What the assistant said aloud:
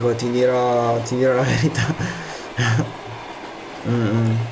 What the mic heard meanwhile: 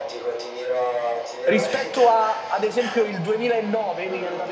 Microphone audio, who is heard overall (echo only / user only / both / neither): both